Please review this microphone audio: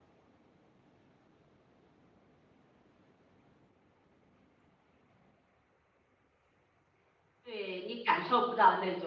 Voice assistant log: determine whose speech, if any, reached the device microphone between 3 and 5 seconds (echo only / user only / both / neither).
neither